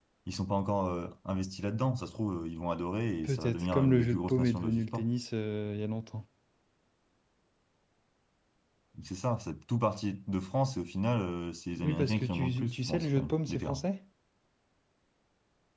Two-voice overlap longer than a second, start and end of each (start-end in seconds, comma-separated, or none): 3.2-5.1, 11.8-13.8